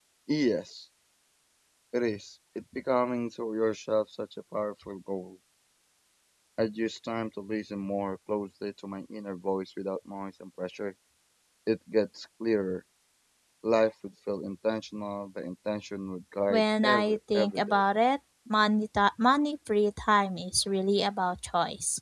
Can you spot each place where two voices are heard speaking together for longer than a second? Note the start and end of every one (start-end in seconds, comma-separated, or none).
16.5-17.8